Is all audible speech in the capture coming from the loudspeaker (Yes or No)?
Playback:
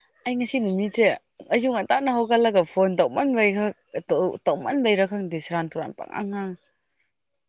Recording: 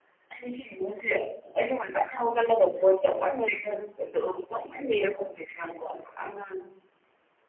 Yes